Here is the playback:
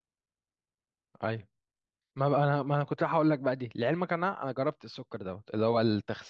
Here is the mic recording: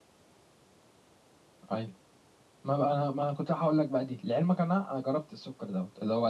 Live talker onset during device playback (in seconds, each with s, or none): none